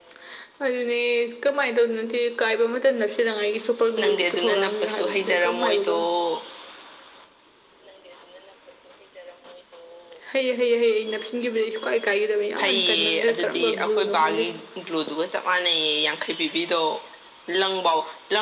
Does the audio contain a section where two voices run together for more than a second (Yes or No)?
Yes